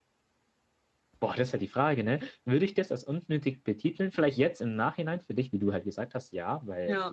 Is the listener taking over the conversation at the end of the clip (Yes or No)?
No